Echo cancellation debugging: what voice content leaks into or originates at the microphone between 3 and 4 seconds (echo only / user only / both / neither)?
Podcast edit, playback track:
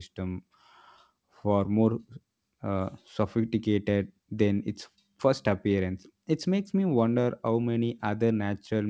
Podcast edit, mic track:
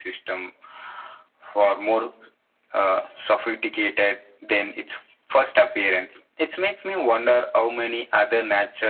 echo only